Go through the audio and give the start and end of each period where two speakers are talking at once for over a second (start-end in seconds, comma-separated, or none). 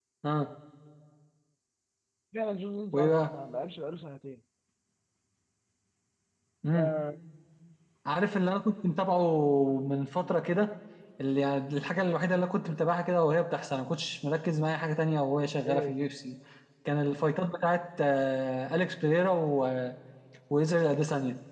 none